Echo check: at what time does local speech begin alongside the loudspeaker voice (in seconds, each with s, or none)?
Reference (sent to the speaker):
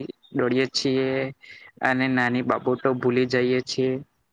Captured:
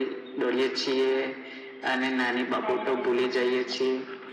2.6 s